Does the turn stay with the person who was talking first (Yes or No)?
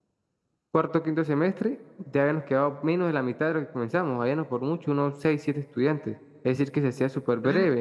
No